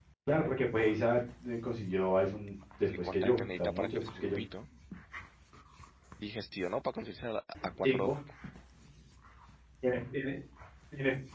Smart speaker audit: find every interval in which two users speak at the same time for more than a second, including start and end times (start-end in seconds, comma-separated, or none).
2.8-4.4